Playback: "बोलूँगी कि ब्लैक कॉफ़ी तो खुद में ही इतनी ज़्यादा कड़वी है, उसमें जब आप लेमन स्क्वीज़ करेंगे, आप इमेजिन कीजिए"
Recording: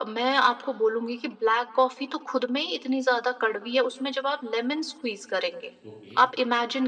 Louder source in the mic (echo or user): echo